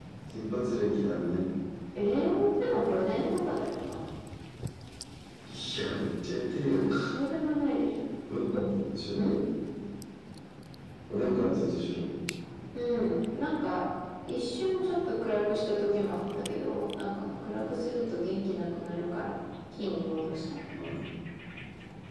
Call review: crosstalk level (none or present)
none